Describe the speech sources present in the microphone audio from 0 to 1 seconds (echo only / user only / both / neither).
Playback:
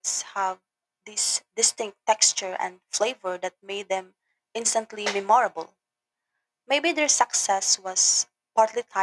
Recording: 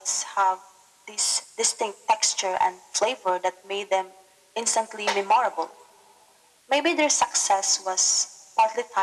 echo only